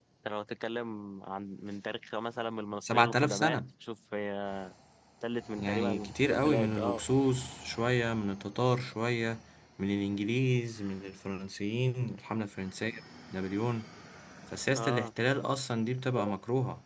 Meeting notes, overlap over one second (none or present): present